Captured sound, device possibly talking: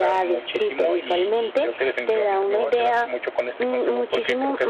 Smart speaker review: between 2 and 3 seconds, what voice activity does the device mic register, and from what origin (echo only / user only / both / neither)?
echo only